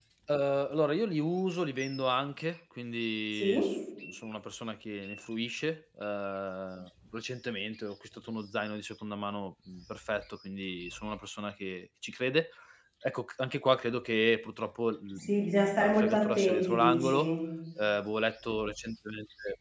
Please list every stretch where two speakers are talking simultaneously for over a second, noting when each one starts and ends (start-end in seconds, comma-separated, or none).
15.8-17.3